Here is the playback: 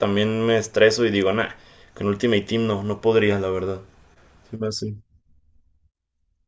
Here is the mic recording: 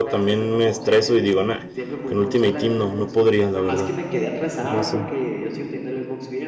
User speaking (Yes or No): Yes